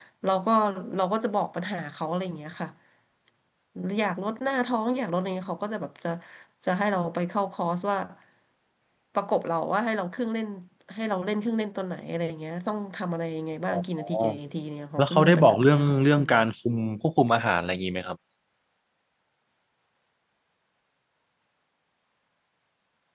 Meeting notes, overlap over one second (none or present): present